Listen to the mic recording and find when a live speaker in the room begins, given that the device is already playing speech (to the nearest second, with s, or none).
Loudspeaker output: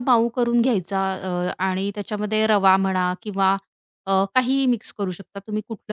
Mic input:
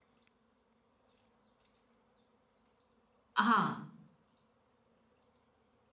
3 s